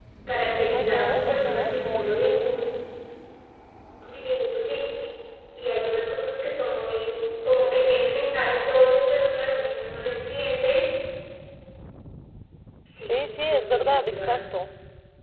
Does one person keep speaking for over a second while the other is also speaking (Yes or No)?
Yes